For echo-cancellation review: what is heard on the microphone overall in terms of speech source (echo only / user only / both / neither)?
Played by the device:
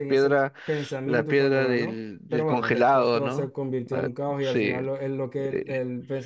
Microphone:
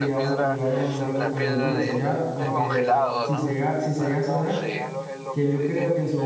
both